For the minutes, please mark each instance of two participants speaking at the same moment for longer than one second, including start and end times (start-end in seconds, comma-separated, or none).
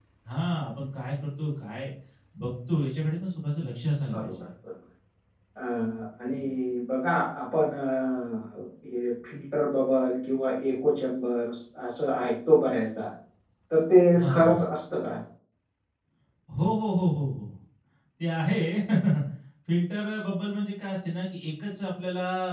none